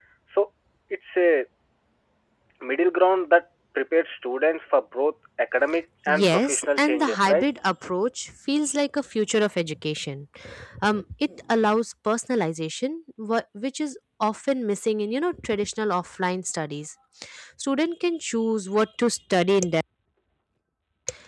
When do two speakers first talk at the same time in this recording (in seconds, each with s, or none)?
6.1 s